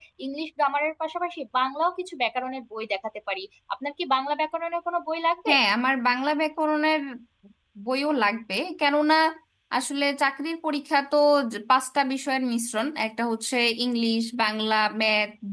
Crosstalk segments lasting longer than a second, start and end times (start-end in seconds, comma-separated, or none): none